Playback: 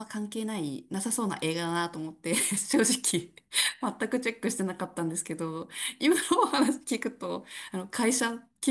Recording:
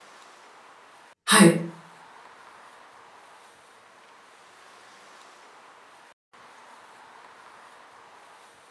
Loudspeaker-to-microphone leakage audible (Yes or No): No